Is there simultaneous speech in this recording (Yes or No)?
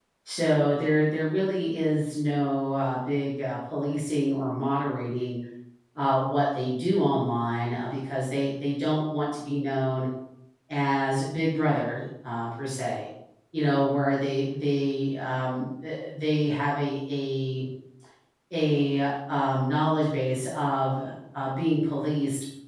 No